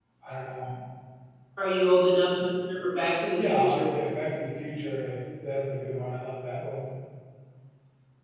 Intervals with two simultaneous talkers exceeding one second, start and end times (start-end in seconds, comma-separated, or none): none